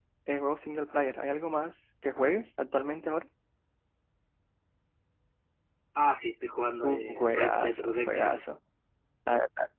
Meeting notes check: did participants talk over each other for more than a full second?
Yes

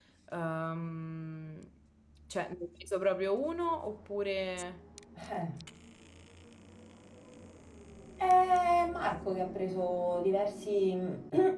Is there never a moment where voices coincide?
Yes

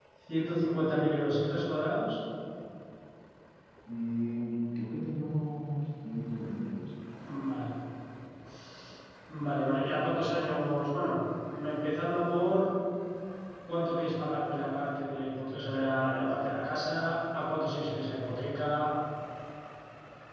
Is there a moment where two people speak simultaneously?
No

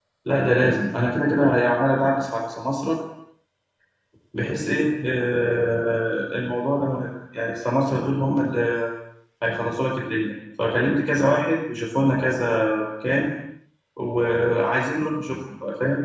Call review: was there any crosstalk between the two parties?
No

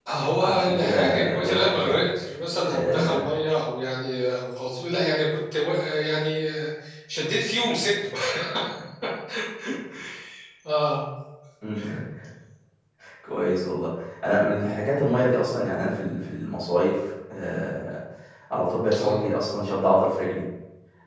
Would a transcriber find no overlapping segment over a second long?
No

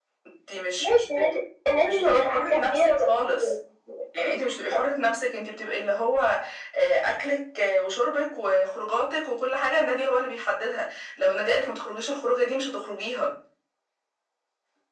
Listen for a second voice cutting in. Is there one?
Yes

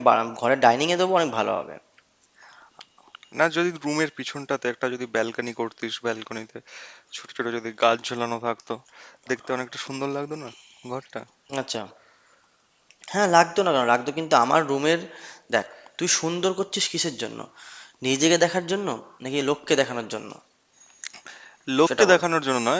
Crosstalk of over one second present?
No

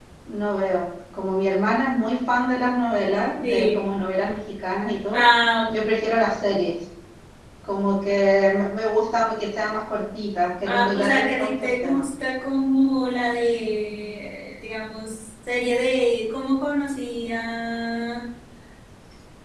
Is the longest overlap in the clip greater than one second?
Yes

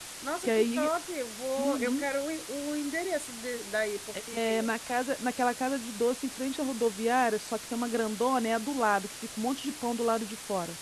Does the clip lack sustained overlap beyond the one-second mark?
Yes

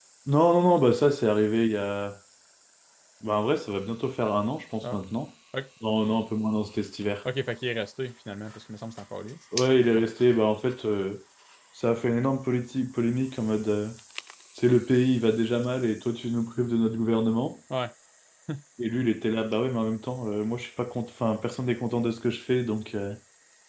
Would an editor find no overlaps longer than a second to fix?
Yes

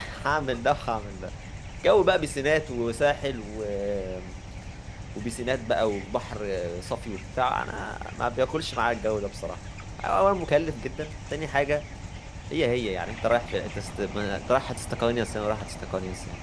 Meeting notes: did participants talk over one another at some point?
No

